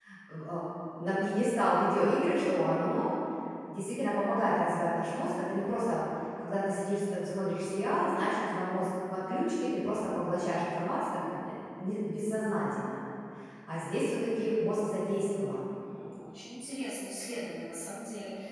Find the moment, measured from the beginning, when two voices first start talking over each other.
none

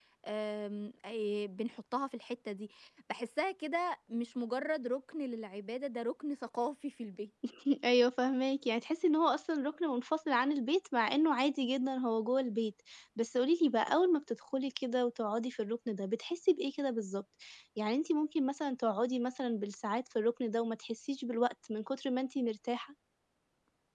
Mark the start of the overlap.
none

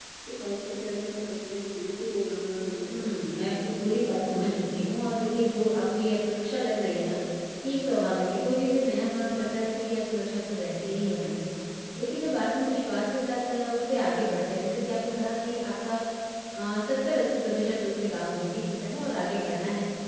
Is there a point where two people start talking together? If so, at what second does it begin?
2.8 s

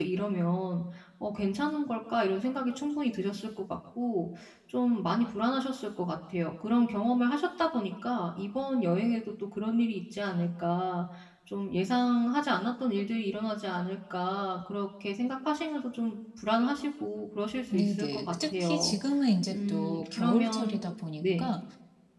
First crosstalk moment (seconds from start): 17.7 s

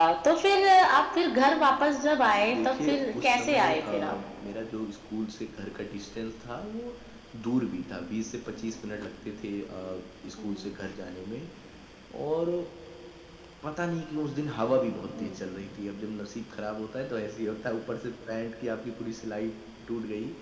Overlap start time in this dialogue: 2.5 s

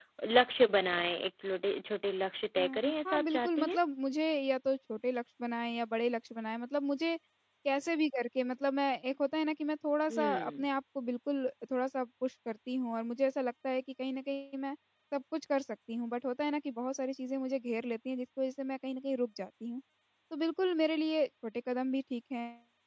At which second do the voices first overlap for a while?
2.6 s

